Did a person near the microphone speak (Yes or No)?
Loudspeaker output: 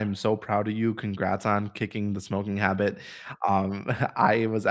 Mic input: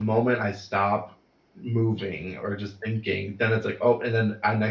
Yes